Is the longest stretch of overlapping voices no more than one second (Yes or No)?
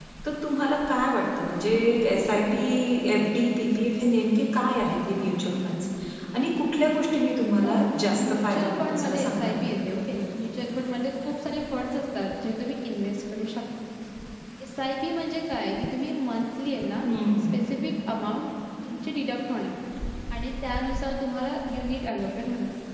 No